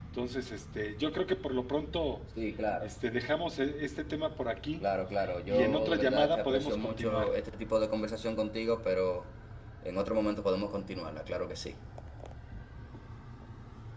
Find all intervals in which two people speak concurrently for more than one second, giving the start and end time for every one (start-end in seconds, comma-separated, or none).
5.5-7.3